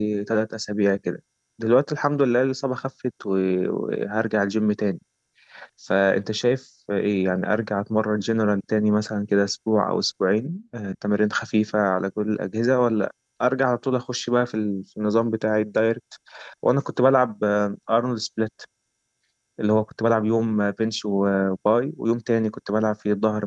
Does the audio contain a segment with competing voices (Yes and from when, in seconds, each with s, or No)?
No